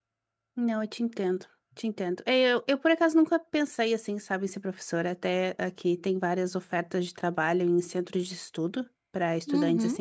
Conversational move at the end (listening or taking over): listening